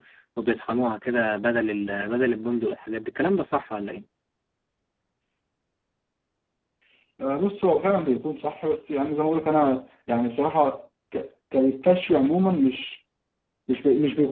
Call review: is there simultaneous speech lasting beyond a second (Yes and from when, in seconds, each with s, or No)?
No